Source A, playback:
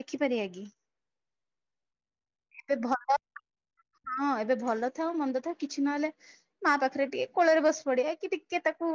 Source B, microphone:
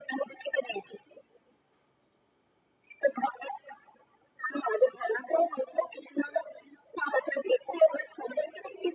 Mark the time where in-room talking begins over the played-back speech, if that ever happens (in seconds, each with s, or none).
none